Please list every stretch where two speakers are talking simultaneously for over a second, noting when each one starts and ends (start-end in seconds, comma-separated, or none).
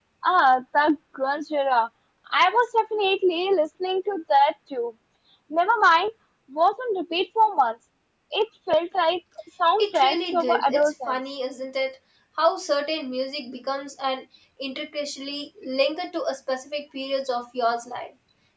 9.8-11.2